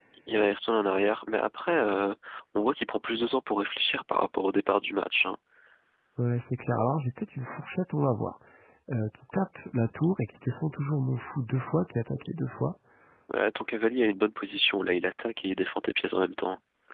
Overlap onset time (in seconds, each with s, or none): none